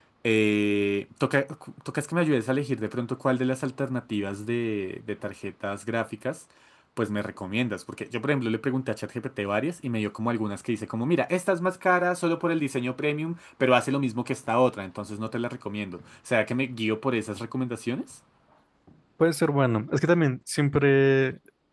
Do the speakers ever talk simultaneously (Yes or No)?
No